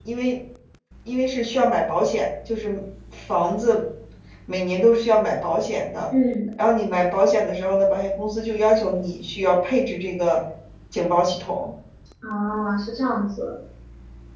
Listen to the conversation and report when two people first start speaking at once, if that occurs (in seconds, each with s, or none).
none